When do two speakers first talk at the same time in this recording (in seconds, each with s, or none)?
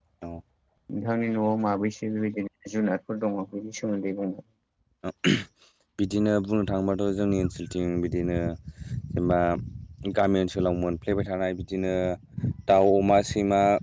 none